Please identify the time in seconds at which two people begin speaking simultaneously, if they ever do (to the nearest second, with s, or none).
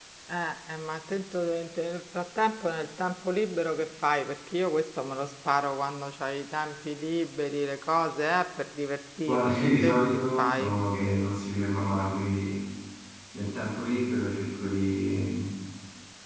9 s